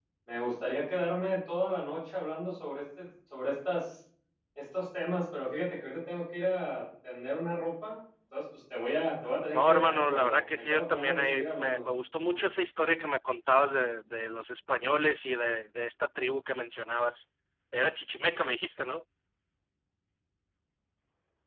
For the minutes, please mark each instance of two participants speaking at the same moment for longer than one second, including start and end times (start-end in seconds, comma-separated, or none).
9.5-11.8